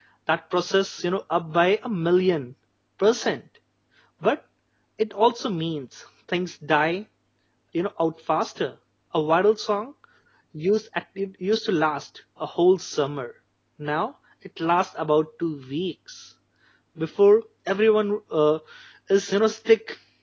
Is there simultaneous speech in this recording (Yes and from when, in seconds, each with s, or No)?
No